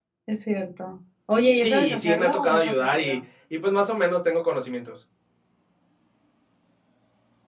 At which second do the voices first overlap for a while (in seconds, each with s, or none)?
1.6 s